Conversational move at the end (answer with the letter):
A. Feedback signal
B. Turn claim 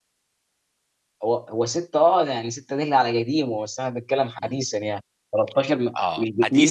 B